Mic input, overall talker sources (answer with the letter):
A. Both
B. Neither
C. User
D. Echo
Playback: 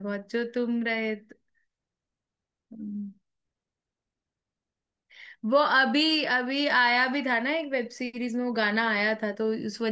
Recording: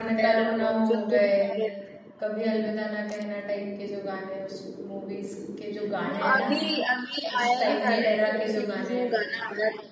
A